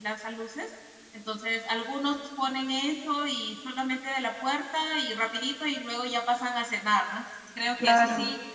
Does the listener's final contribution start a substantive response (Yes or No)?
No